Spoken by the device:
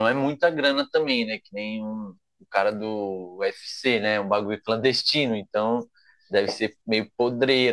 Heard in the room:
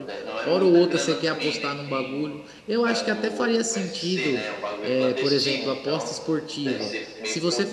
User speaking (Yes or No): Yes